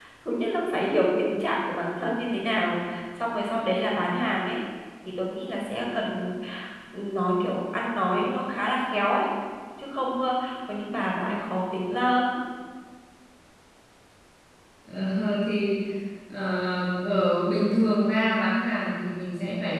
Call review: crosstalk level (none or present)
none